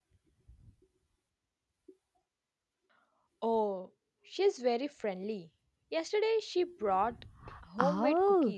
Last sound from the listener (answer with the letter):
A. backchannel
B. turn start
B